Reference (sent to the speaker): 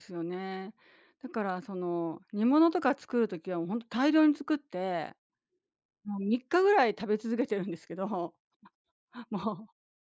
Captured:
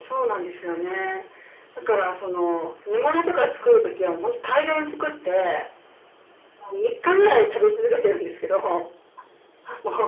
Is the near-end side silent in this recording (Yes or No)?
Yes